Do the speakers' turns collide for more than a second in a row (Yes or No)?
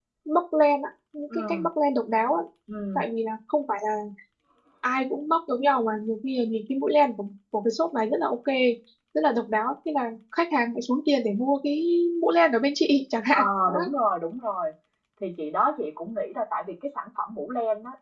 No